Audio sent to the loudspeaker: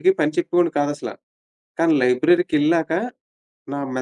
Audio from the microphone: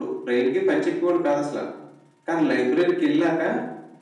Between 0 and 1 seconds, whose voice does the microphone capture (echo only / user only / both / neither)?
echo only